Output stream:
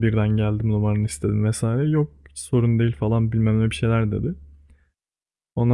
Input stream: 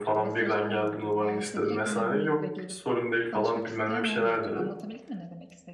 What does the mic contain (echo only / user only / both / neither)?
both